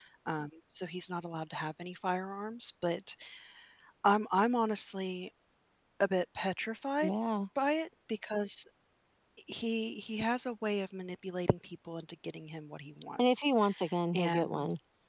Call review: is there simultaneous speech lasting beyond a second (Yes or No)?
No